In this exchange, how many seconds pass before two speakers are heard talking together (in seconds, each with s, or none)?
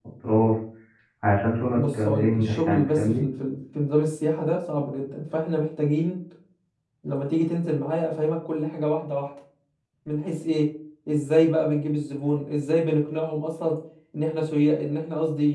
1.8 s